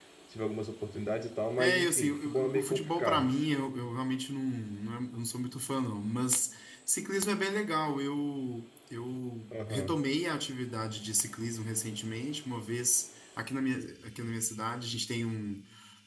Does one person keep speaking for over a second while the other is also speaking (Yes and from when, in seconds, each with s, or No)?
Yes, from 1.6 s